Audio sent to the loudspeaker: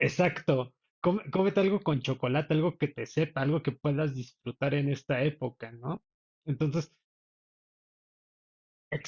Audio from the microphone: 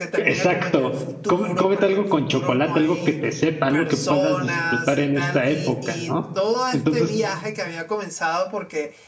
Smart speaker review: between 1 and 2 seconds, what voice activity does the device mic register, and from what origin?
both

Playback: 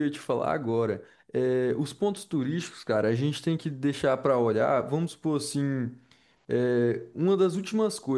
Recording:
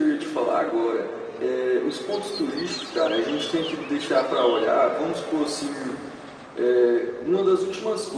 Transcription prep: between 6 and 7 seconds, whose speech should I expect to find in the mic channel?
echo only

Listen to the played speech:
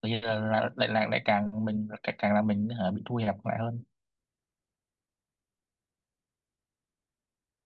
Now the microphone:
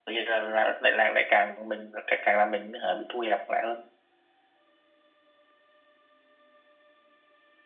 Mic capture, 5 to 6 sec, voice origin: neither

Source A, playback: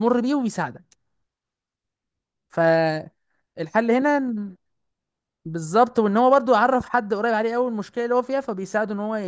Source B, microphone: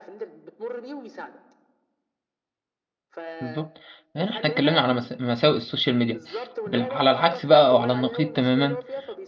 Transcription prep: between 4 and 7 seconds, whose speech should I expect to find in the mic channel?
both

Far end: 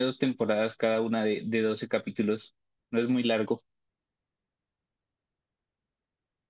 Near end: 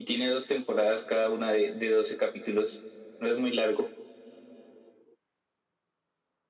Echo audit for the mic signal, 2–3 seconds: echo only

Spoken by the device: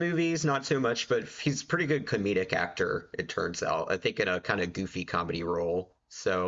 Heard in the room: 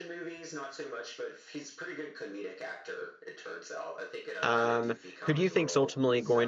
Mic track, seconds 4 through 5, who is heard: both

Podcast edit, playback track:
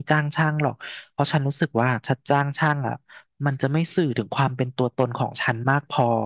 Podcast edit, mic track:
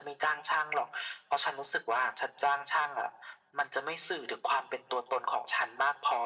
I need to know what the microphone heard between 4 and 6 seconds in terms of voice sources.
echo only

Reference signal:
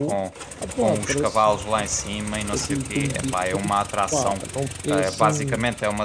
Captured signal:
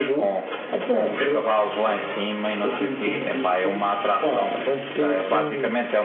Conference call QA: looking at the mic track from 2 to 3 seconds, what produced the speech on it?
echo only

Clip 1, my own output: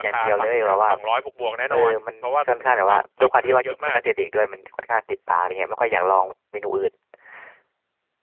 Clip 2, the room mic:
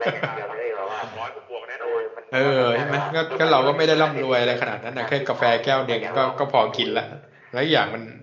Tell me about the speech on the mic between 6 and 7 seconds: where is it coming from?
both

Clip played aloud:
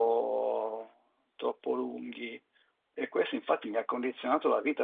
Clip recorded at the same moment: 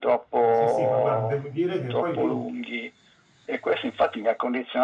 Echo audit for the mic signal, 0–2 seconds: both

